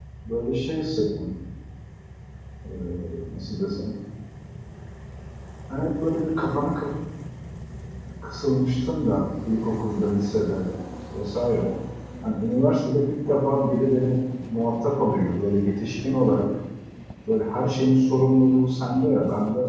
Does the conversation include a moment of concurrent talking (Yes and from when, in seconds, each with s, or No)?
No